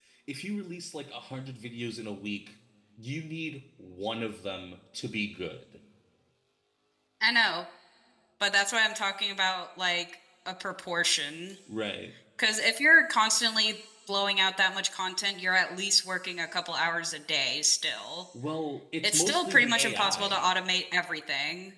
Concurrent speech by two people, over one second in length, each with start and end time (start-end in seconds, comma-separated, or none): 19.0-20.5